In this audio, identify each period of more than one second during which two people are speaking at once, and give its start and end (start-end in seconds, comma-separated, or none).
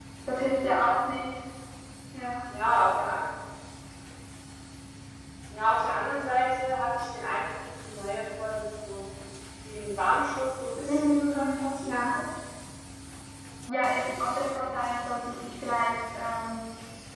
10.9-12.2